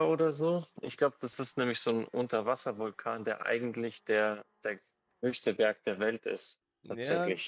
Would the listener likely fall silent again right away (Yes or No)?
No